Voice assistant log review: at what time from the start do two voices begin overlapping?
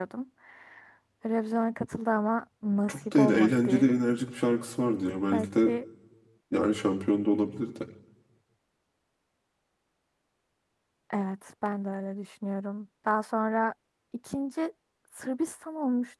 2.9 s

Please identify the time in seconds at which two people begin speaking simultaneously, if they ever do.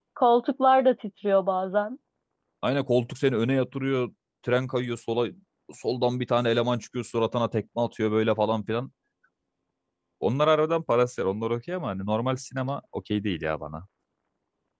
none

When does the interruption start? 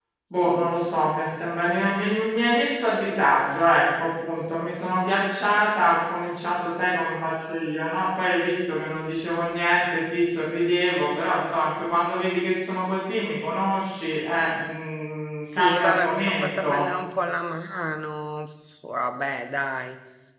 15.4 s

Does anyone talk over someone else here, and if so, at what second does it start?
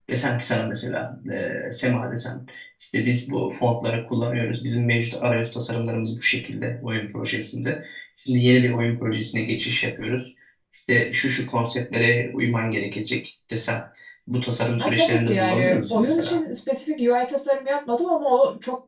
14.8 s

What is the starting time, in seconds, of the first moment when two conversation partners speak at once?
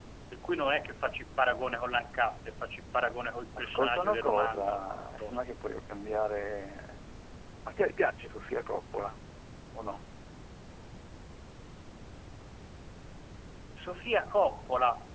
3.6 s

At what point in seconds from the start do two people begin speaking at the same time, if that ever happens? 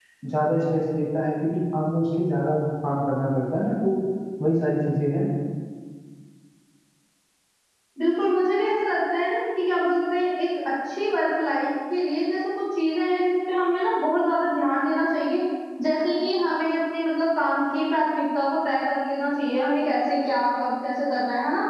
none

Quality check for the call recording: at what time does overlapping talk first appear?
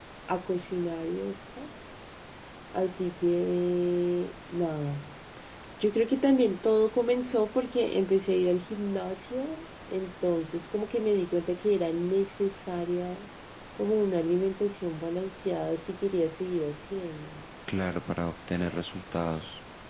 none

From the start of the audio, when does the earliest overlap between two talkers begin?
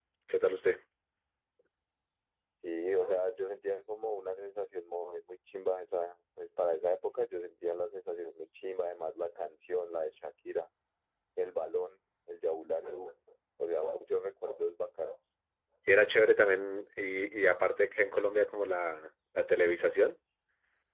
none

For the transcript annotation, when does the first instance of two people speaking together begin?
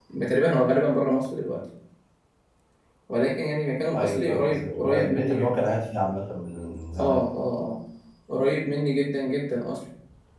4.0 s

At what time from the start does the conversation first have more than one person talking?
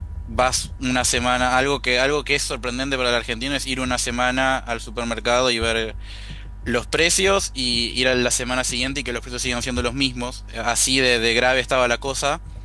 none

